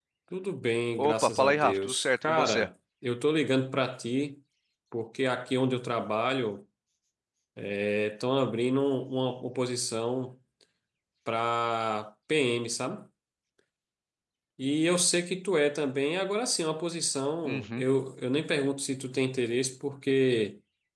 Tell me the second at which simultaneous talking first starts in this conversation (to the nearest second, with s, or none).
1 s